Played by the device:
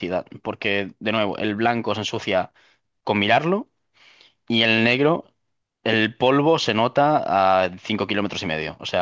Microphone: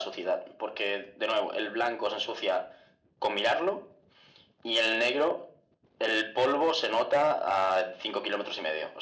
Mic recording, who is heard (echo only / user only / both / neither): echo only